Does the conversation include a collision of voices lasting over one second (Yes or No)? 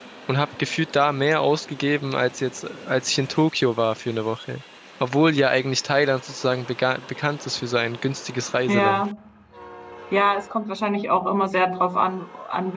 No